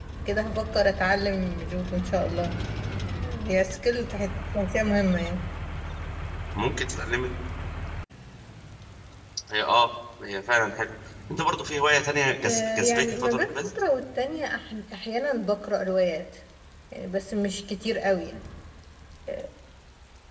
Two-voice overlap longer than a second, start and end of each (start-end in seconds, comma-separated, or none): 12.4-13.7